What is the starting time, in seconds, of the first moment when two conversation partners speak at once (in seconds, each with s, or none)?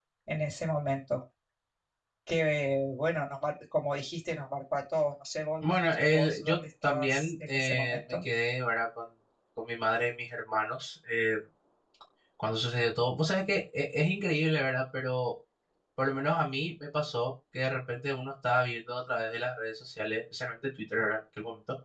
6.1 s